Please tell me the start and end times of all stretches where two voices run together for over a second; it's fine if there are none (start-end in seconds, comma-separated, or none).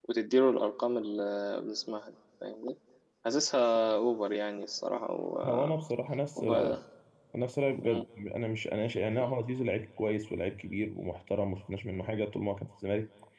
none